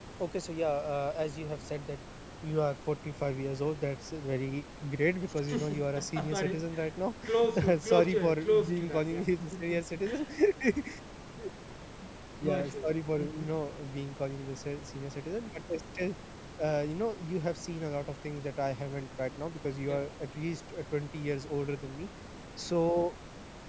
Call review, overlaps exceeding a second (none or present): present